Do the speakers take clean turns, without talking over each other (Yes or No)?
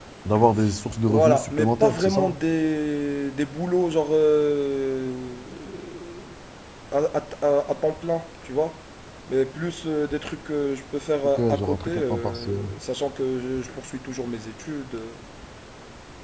No